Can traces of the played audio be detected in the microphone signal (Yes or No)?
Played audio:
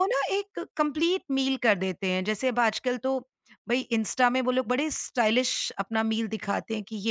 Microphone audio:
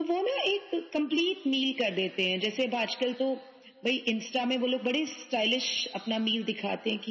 Yes